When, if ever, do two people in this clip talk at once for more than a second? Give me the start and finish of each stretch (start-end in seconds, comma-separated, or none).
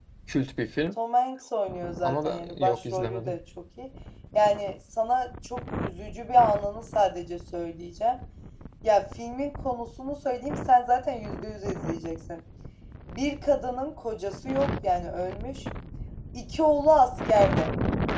2.0-3.4